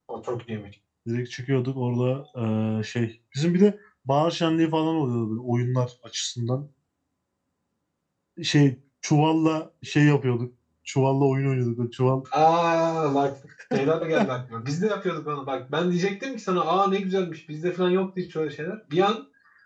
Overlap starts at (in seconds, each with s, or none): none